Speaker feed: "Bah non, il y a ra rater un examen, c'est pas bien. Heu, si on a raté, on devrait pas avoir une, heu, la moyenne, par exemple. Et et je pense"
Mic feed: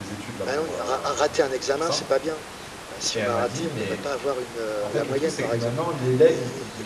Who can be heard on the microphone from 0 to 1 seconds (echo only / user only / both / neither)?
both